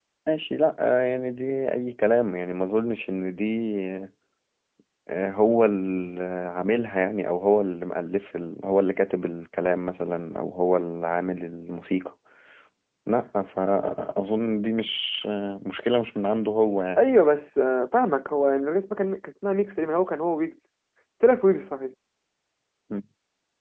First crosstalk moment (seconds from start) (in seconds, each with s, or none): none